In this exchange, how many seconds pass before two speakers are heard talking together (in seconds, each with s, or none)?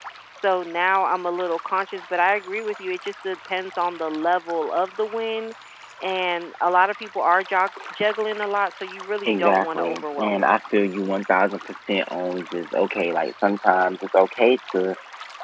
9.2 s